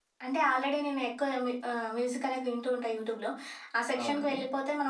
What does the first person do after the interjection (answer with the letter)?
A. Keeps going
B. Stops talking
A